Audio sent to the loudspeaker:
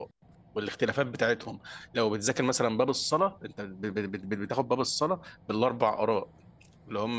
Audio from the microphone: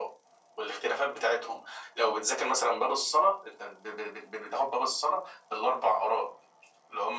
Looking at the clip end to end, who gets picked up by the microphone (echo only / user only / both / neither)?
echo only